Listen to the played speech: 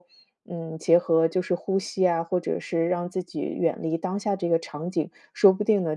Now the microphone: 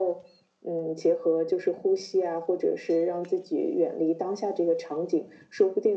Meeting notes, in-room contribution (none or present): none